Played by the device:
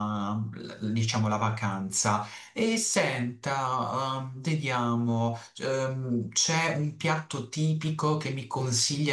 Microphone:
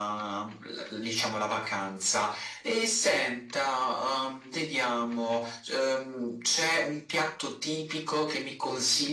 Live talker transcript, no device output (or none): none